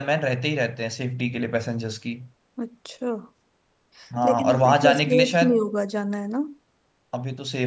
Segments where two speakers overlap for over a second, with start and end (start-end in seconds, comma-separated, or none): 4.2-5.6